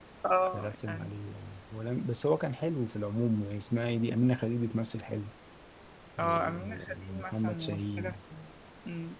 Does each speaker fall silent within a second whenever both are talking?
No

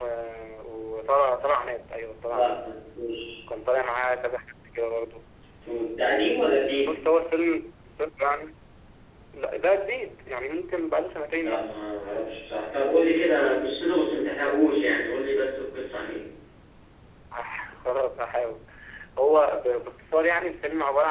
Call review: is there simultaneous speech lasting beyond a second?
No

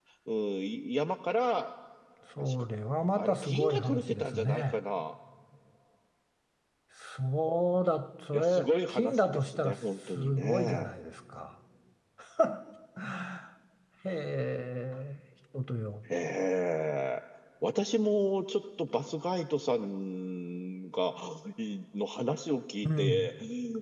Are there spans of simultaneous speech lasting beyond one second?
Yes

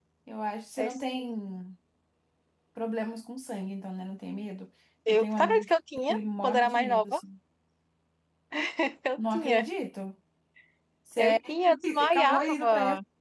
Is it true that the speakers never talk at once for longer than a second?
No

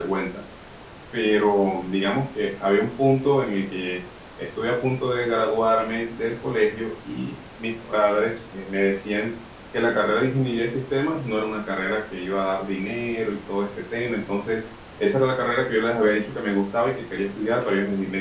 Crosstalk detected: No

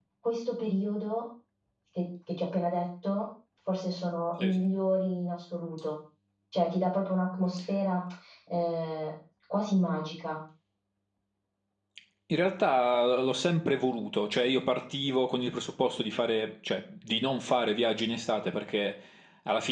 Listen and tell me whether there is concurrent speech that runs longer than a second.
No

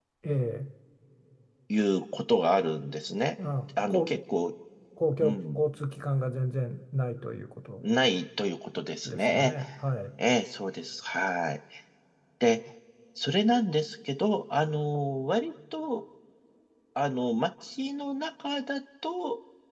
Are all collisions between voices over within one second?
Yes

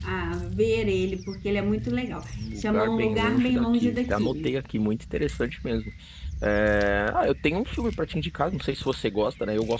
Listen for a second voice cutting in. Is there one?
Yes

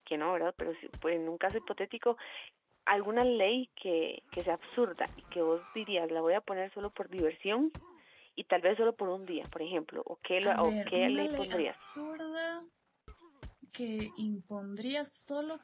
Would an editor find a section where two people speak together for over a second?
Yes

